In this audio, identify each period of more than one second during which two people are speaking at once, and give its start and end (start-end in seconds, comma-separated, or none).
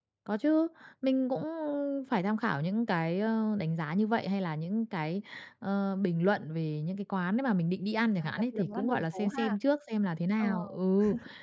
8.2-9.6